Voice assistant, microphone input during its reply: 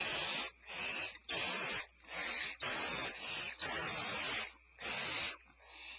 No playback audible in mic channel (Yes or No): Yes